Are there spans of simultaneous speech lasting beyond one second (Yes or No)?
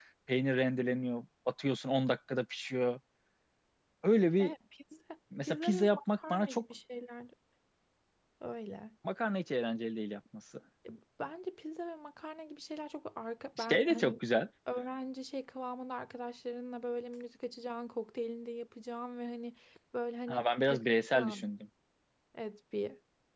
Yes